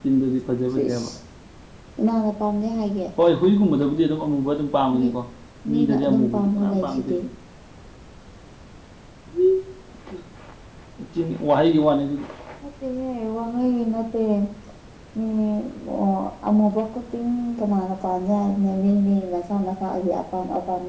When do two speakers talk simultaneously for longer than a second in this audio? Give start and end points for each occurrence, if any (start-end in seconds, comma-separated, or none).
5.7-7.2